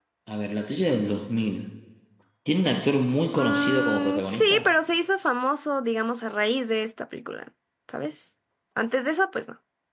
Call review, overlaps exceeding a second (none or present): present